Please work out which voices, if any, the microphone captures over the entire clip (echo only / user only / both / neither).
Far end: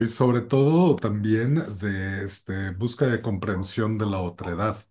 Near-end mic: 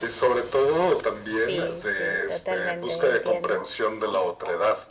both